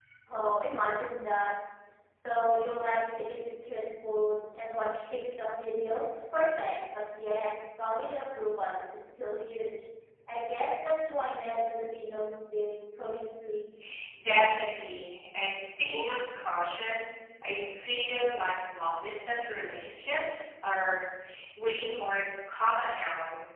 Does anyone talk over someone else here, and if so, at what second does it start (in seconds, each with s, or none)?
none